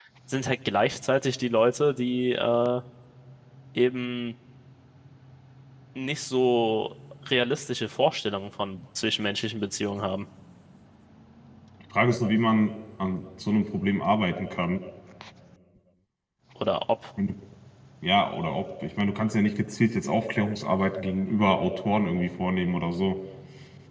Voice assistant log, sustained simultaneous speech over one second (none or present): none